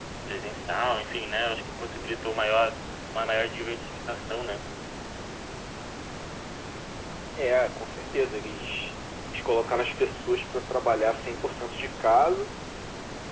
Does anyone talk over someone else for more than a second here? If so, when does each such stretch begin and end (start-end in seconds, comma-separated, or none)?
none